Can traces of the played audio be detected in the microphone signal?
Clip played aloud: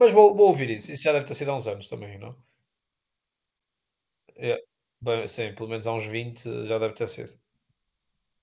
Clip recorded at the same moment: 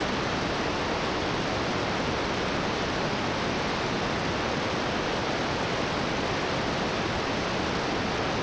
No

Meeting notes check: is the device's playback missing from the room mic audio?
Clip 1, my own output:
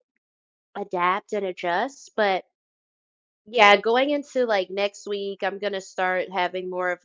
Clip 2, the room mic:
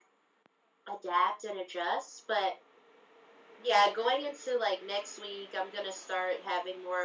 No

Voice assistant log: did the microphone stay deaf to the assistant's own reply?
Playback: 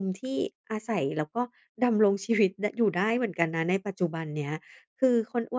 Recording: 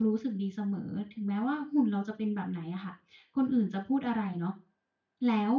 Yes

